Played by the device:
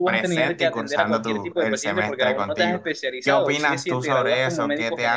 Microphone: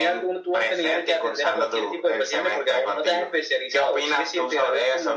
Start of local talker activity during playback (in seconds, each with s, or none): none